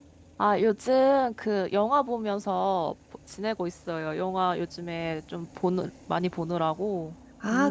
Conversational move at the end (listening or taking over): taking over